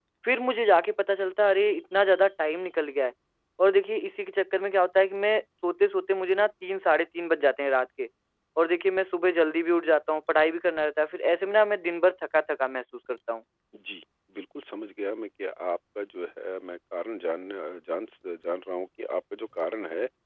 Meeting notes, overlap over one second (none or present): none